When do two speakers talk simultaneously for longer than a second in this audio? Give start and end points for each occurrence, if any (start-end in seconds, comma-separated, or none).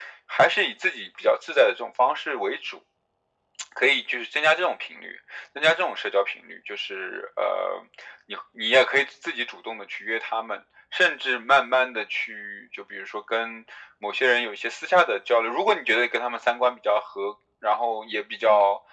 none